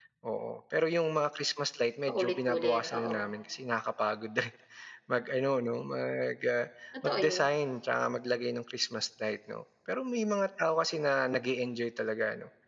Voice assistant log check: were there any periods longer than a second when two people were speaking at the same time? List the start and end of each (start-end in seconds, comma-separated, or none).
2.1-3.3